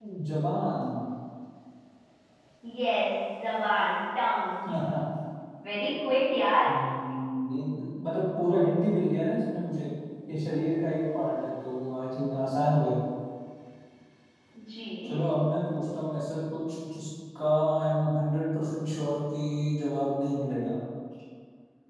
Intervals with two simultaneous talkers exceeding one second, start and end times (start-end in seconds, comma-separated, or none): none